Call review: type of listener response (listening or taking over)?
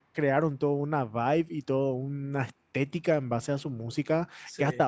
listening